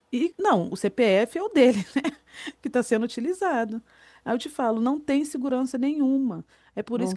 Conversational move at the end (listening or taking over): listening